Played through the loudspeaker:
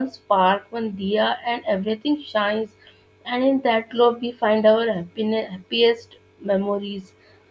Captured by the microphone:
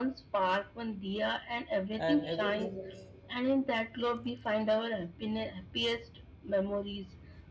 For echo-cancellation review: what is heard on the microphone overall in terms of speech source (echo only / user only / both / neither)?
both